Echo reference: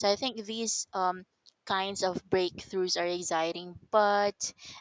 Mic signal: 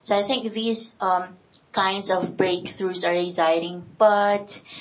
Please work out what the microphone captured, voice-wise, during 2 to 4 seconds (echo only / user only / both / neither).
echo only